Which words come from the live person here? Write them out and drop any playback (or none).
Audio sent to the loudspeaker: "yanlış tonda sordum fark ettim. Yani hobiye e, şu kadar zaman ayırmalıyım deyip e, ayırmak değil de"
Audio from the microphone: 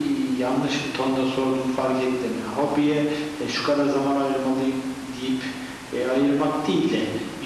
none